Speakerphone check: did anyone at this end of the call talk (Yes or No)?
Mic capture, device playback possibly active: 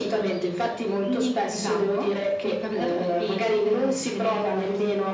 No